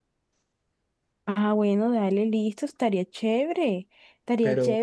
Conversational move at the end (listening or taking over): listening